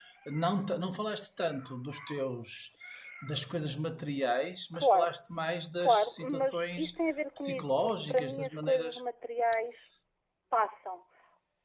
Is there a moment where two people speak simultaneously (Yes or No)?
Yes